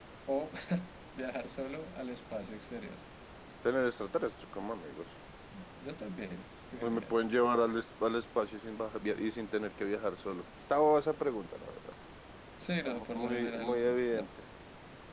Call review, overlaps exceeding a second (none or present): present